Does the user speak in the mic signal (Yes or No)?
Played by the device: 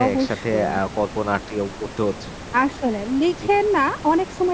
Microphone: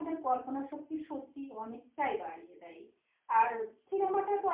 Yes